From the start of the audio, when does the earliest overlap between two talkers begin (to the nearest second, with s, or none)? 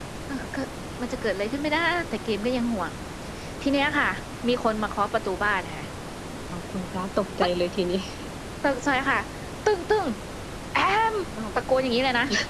none